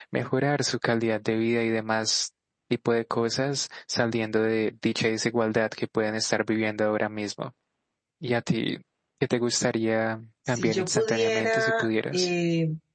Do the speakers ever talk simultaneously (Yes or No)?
Yes